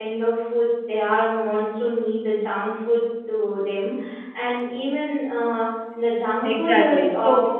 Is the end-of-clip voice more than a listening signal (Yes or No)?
Yes